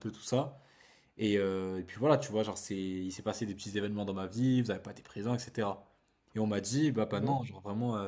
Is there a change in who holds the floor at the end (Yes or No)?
No